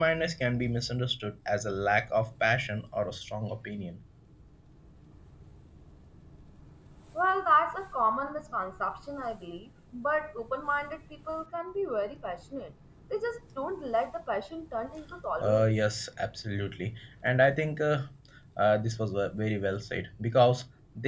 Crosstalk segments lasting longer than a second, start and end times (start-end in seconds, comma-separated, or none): none